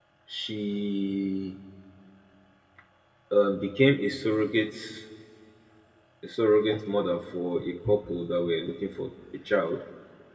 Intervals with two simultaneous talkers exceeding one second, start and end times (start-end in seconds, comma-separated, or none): none